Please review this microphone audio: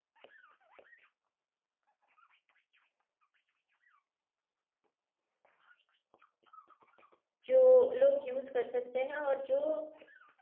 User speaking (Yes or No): Yes